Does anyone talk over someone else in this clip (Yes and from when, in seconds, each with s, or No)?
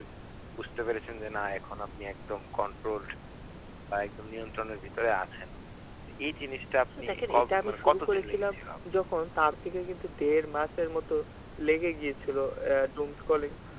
Yes, from 7.0 s